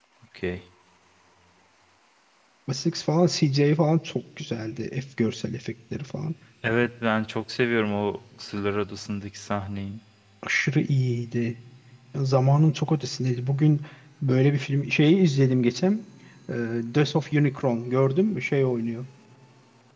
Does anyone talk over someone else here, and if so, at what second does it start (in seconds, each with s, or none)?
none